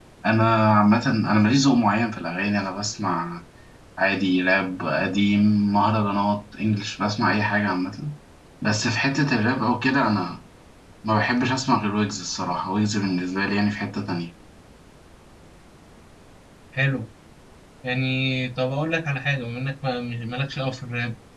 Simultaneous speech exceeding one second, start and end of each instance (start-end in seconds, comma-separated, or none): none